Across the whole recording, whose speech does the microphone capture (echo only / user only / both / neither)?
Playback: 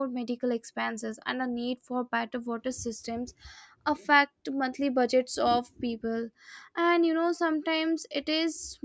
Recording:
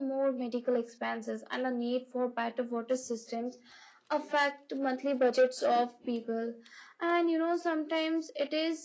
echo only